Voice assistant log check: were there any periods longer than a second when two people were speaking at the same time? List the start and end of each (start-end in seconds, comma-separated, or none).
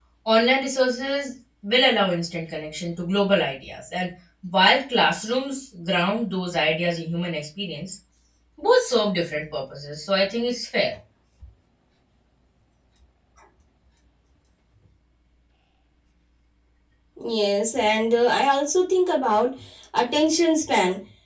none